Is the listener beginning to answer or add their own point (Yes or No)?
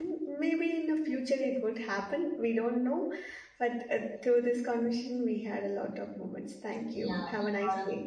Yes